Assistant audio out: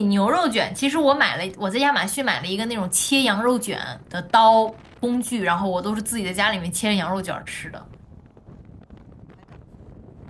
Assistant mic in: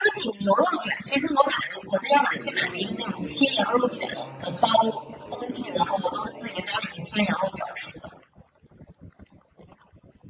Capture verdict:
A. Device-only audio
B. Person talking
B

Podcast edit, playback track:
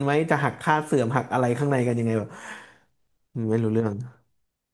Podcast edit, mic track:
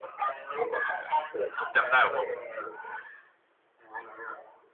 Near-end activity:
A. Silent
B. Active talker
B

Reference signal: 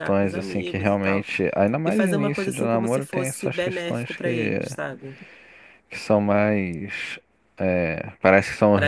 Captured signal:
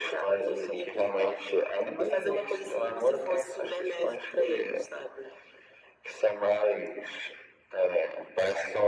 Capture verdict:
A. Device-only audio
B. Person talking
A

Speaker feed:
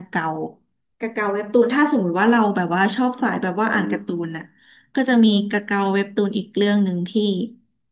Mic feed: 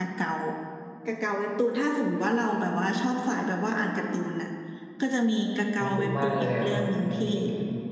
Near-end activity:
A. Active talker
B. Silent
A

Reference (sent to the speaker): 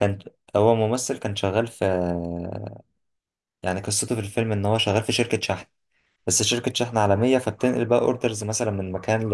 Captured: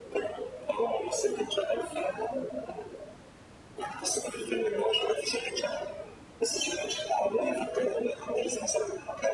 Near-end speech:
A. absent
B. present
A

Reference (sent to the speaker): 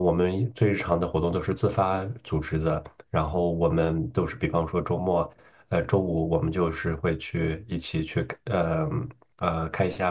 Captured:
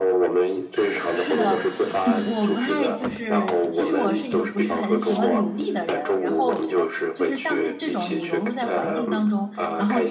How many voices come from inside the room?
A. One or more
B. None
A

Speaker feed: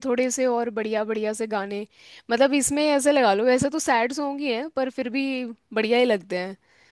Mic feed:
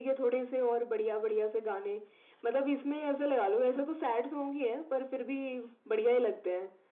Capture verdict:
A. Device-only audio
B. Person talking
A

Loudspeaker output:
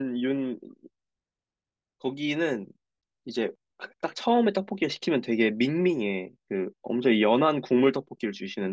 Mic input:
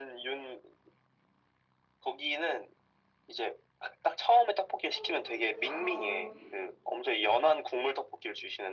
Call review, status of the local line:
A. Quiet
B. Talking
B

